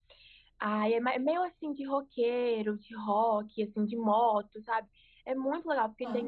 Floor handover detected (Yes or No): No